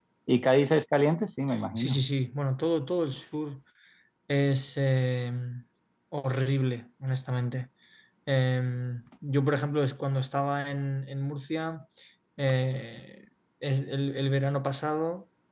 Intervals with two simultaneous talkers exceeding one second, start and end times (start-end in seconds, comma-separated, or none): none